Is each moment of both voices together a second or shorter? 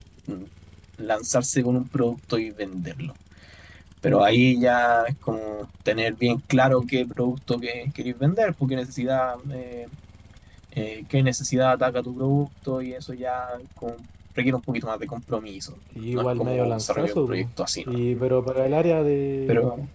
No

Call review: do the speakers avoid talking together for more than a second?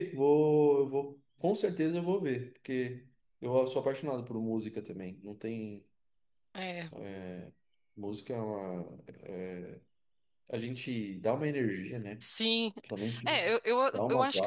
Yes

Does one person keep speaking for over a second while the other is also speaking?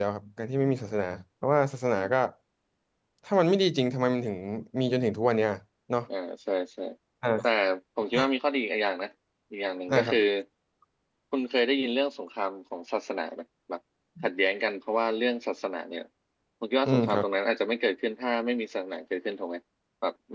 No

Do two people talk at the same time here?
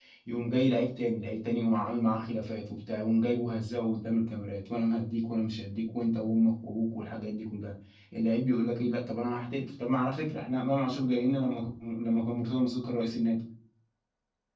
No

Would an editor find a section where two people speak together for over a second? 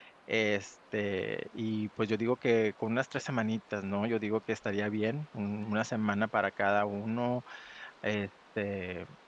No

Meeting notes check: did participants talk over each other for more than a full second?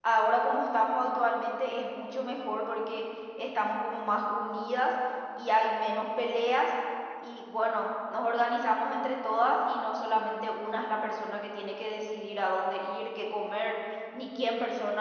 No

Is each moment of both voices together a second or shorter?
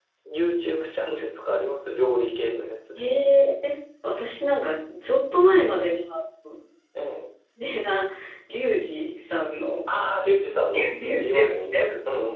No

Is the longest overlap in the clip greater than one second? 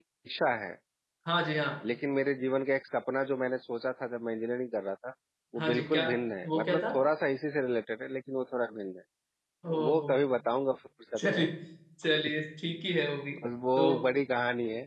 No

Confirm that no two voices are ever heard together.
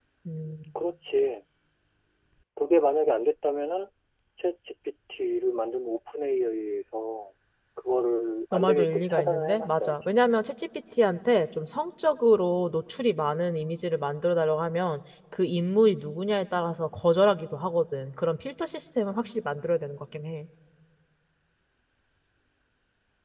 No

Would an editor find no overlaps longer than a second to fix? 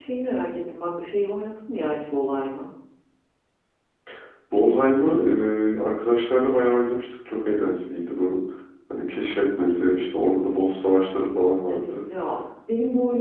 Yes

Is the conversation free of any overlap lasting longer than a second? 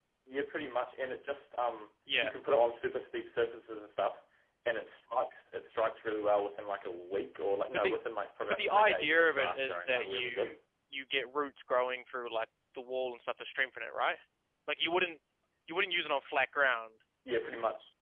No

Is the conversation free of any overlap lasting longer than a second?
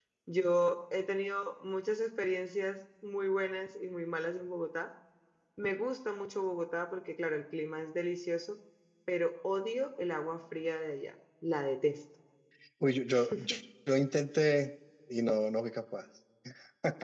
Yes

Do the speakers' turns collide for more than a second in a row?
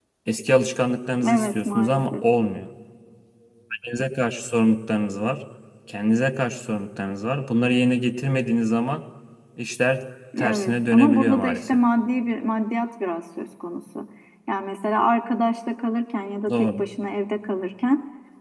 Yes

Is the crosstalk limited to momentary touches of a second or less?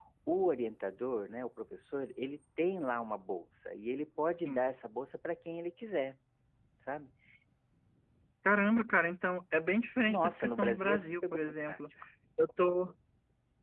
No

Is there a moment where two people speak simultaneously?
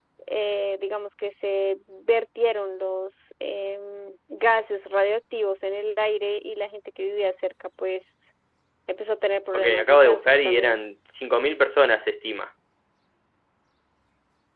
Yes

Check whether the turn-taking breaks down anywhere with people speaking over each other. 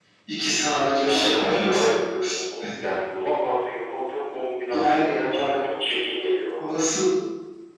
Yes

